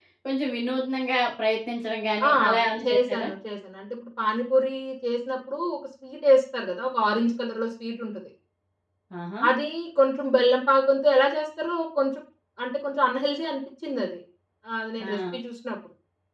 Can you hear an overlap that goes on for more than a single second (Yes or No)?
No